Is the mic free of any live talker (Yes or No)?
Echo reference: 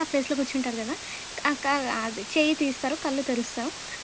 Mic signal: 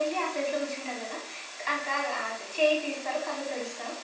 Yes